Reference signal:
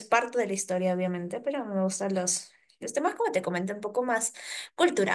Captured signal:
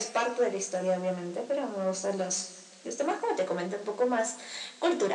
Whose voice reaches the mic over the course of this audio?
echo only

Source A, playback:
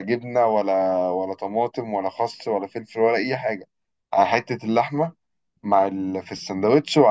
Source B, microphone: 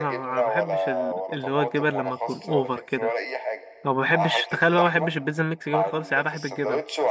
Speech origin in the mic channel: both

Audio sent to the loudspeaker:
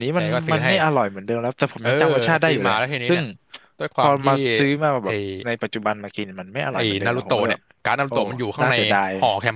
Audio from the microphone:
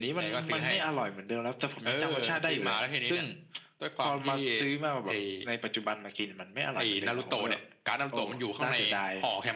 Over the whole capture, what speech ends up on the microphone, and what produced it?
echo only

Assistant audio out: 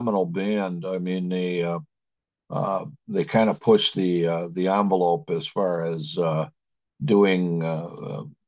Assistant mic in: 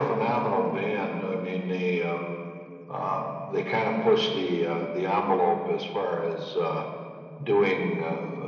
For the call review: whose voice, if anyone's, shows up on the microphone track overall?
echo only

